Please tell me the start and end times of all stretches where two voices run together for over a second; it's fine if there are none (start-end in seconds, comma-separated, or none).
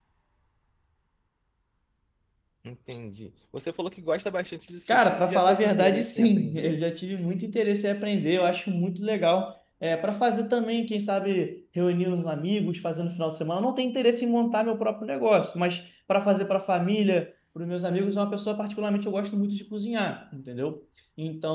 4.9-6.8